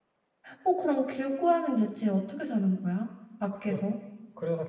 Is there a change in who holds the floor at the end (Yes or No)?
Yes